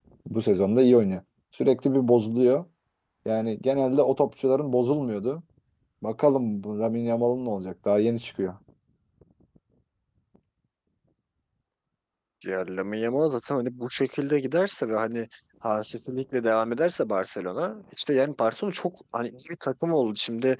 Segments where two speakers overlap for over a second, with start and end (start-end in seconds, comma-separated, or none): none